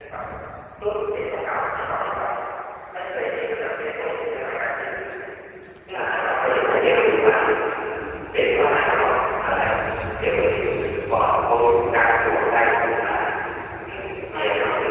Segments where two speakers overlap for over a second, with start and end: 5.9-7.2

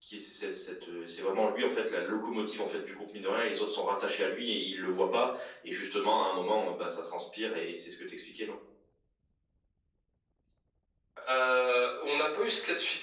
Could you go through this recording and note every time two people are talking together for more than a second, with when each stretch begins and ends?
none

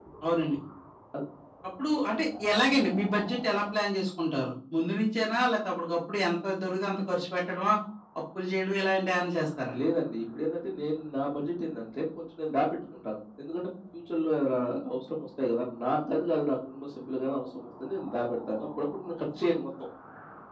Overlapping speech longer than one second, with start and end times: none

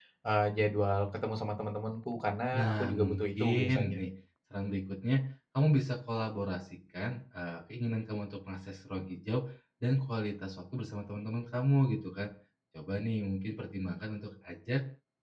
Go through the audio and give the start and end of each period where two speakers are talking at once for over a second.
2.5-4.0

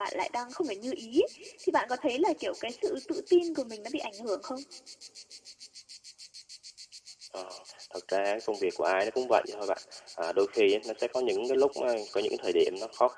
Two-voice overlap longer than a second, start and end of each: none

